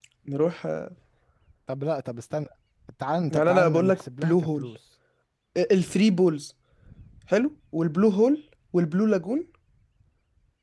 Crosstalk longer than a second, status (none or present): present